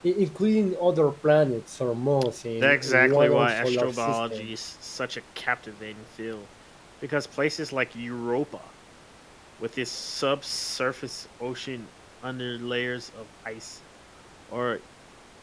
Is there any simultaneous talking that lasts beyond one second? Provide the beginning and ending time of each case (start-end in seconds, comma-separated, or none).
2.6-4.5